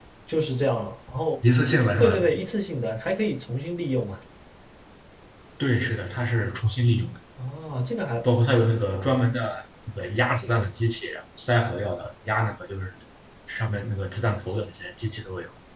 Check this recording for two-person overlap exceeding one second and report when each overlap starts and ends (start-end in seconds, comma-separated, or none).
none